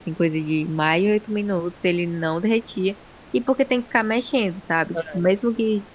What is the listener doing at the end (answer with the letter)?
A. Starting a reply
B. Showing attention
B